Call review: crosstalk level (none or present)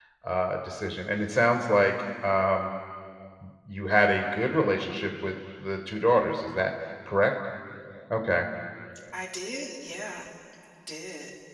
none